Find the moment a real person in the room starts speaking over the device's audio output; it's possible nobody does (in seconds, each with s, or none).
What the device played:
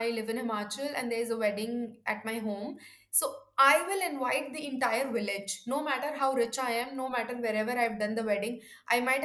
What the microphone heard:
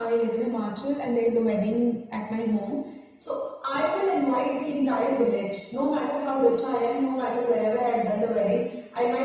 none